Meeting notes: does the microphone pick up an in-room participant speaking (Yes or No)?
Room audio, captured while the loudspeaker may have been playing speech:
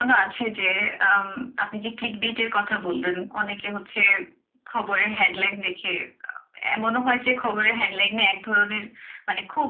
No